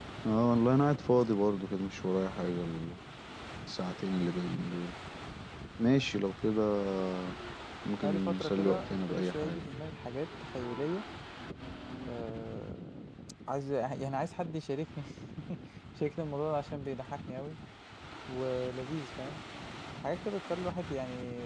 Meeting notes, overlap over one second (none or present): present